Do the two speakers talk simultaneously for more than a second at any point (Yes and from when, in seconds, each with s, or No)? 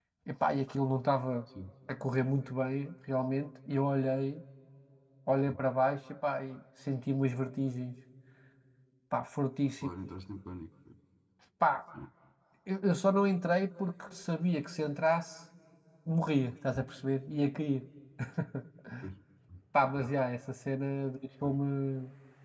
No